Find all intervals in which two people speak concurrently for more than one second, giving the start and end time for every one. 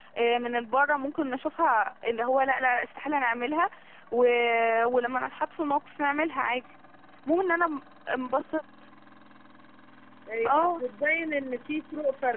none

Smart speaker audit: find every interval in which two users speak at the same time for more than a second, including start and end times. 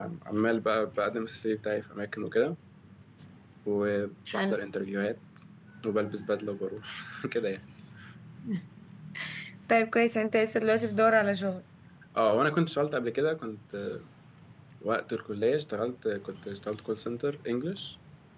none

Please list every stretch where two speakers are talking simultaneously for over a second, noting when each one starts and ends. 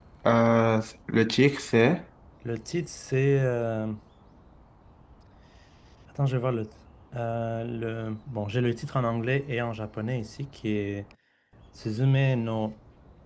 none

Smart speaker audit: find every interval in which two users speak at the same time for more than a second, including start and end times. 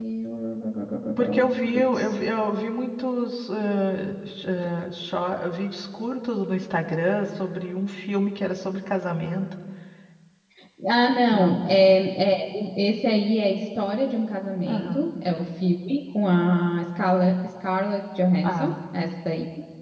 none

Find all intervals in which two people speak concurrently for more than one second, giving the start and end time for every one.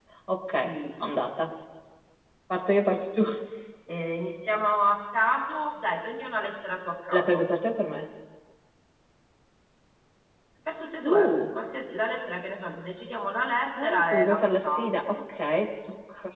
13.8-15.2

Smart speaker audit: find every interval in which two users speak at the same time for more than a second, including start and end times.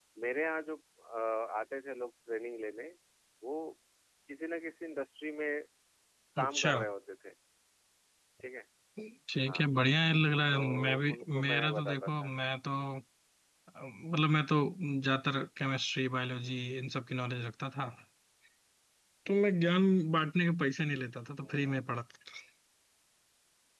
10.5-12.3

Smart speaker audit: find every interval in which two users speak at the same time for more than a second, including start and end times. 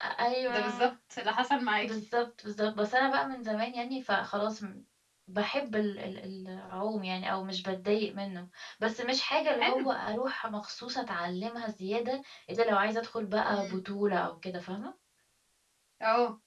none

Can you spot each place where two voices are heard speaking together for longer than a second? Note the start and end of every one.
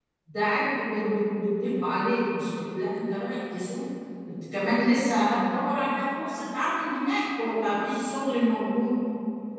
none

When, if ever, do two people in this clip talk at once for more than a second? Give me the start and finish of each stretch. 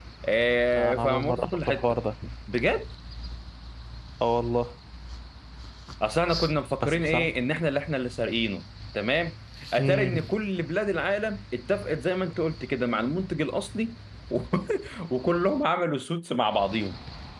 0.7-2.0

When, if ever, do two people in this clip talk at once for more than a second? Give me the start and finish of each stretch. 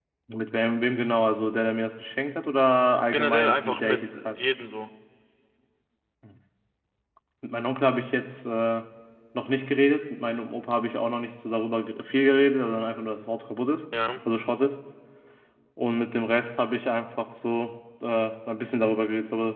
3.1-4.4

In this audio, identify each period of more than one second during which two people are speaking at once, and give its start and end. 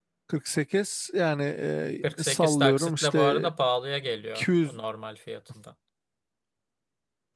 2.2-3.5

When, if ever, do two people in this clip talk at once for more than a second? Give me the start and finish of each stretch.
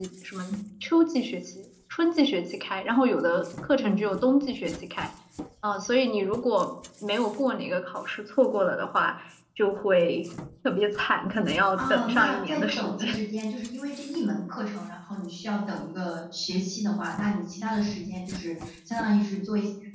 11.7-13.2

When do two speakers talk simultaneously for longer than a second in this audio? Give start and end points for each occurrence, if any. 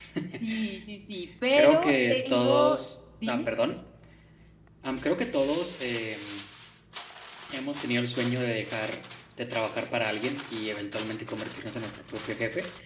1.5-2.8

